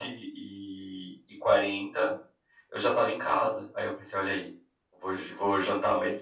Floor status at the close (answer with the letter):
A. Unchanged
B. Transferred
A